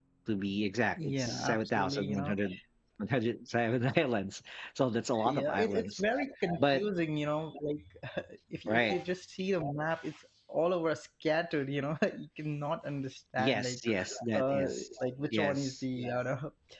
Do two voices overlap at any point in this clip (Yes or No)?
Yes